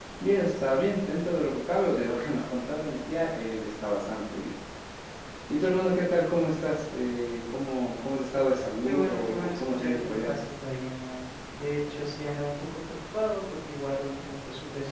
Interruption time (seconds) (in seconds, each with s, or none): 8.8 s